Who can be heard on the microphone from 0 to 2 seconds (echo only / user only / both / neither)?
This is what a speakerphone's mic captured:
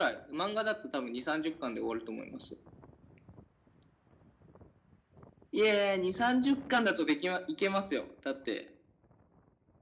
echo only